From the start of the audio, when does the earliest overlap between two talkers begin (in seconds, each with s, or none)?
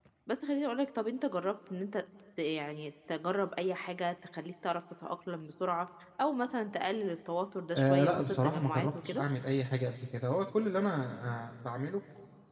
7.7 s